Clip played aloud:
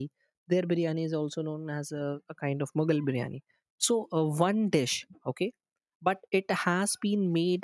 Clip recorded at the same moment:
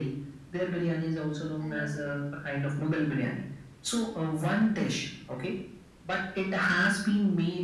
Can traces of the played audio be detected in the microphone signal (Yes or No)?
Yes